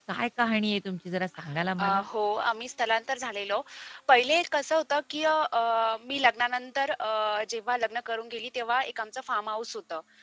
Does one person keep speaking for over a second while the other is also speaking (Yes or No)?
No